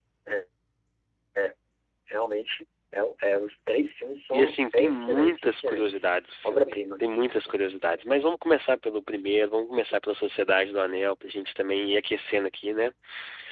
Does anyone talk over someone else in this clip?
Yes, from 4.3 s

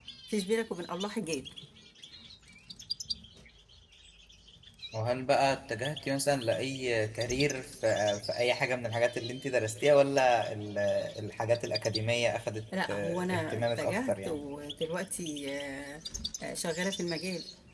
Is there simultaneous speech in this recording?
Yes, from 12.7 s

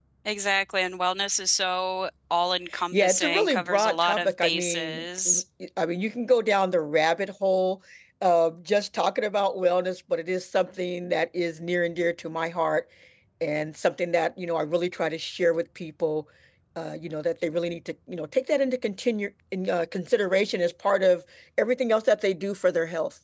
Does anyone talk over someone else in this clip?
Yes, from 2.9 s

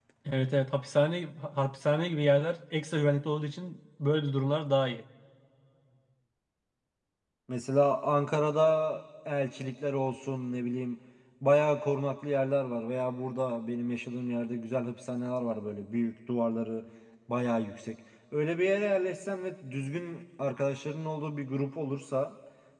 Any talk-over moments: No

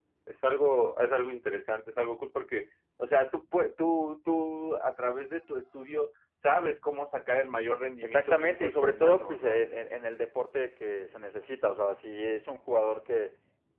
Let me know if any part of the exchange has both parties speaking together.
Yes, from 8.0 s

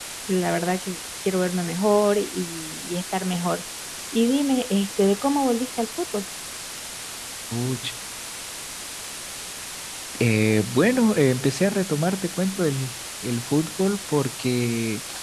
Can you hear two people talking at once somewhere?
No

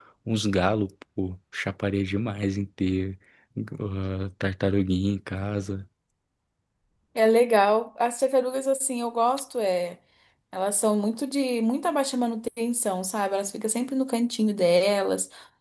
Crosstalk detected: No

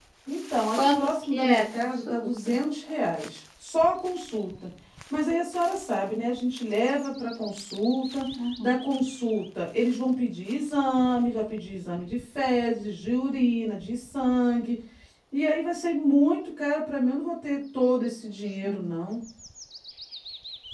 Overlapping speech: Yes, from 0.8 s

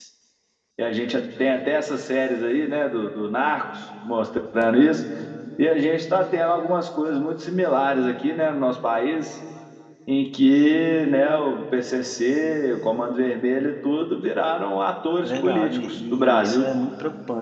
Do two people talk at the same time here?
Yes, from 15.2 s

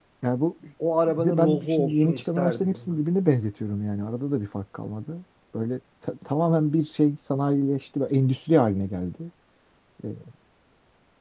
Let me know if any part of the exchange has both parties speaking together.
Yes, from 1.1 s

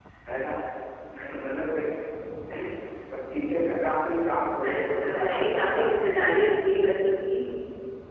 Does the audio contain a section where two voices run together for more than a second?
Yes, from 4.6 s

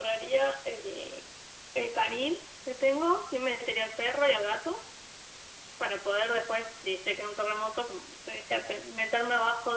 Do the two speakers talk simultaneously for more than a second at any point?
No

